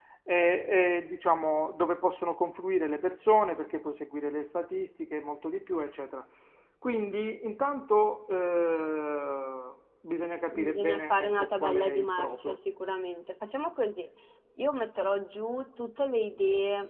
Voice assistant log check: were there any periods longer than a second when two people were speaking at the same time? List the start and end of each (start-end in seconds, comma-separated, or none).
10.7-12.5